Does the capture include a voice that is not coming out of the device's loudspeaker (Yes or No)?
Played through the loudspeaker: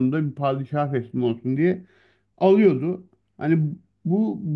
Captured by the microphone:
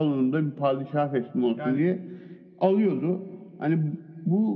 Yes